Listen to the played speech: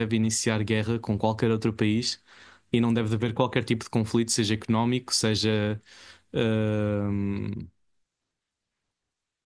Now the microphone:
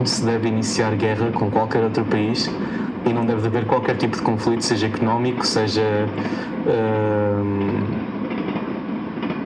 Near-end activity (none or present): none